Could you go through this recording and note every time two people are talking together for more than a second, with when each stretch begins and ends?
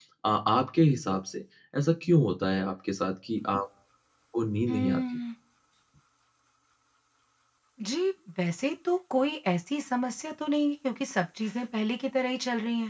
none

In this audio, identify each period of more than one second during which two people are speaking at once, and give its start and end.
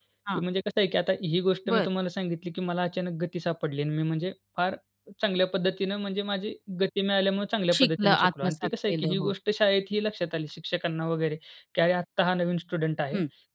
7.7-9.3

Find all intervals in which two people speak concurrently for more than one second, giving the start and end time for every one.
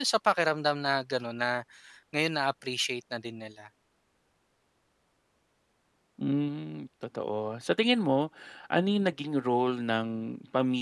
none

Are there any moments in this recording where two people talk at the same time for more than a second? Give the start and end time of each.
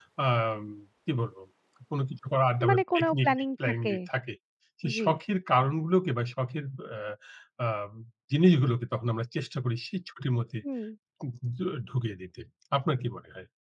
2.6-3.9

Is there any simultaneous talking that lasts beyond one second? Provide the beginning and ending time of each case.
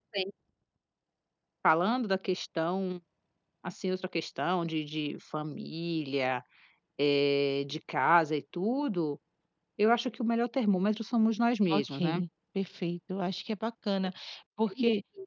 none

